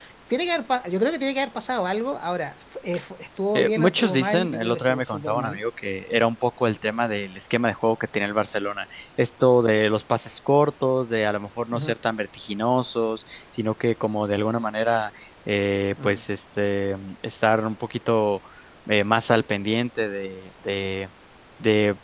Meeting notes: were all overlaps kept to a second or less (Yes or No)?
No